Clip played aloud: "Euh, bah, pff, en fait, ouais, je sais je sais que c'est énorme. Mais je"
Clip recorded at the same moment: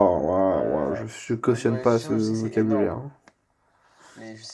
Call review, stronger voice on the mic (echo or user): user